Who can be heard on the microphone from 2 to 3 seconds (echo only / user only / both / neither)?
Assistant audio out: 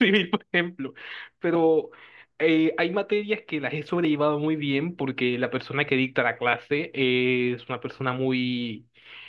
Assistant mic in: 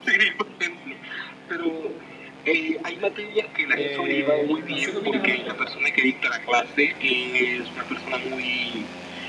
echo only